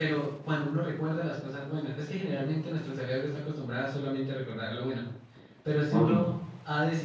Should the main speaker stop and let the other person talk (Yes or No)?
No